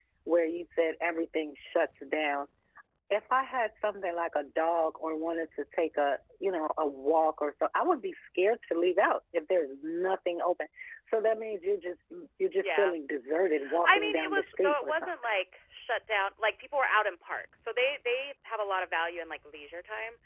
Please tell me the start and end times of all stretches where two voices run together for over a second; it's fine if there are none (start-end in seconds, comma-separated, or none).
13.8-15.1